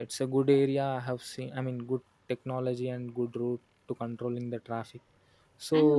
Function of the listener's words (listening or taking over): taking over